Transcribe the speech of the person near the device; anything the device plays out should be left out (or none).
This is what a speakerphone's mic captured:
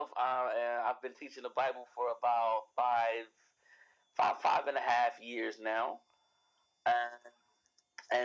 none